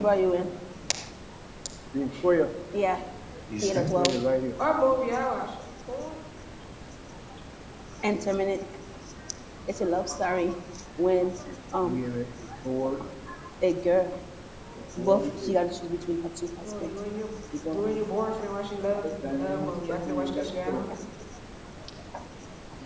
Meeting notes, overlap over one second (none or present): present